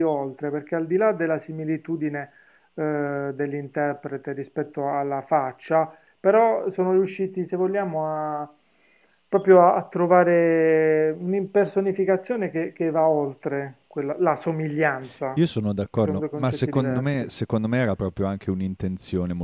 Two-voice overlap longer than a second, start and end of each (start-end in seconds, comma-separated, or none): 16.0-17.3